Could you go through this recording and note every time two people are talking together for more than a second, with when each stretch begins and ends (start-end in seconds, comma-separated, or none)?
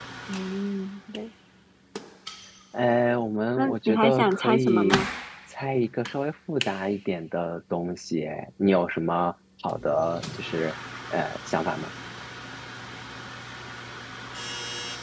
3.6-5.0